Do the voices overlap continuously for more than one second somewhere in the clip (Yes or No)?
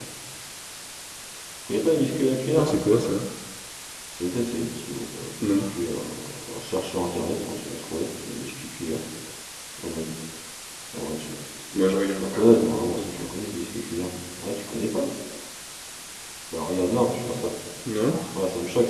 No